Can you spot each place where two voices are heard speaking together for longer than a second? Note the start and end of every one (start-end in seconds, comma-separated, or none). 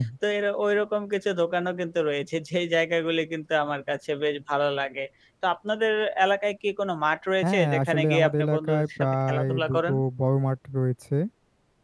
7.4-10.0